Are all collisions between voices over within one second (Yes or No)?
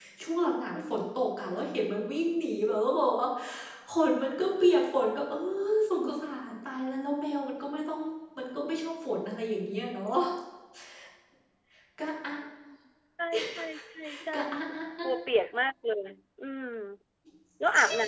Yes